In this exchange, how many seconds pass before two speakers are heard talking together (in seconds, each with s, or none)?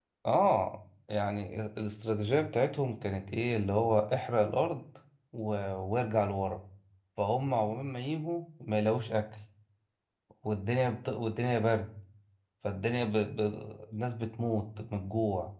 none